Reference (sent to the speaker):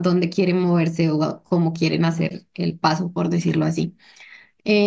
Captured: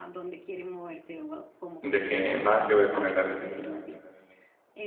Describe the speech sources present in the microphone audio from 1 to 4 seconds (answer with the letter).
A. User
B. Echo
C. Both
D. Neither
C